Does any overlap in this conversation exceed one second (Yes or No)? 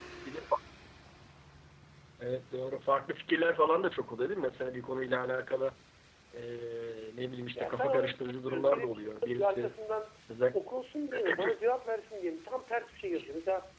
Yes